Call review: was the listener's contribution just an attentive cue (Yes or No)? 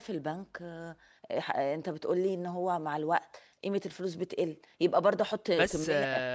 No